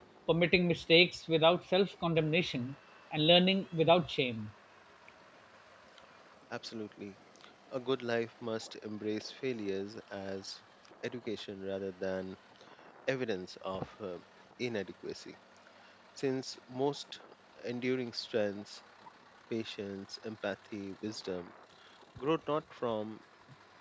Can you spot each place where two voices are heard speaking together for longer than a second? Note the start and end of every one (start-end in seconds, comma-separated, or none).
none